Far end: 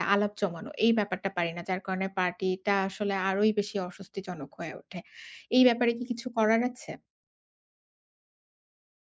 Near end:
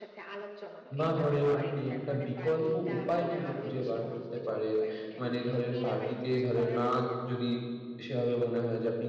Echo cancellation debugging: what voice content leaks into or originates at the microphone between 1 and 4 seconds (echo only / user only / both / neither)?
both